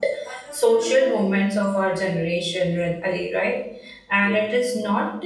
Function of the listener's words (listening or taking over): listening